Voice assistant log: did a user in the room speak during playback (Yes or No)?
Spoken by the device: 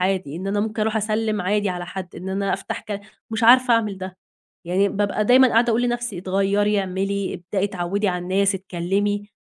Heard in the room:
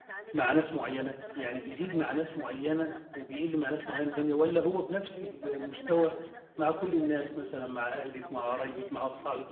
Yes